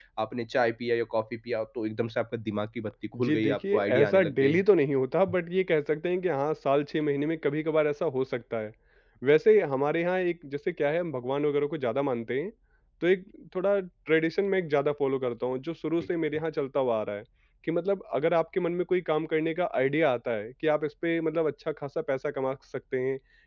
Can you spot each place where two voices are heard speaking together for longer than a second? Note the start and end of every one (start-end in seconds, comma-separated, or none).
3.2-4.6